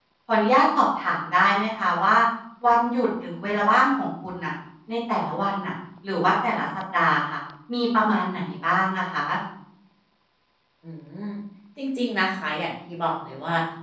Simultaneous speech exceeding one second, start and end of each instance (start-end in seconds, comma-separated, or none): none